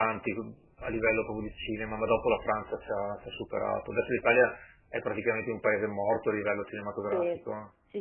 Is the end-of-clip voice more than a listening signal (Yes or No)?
Yes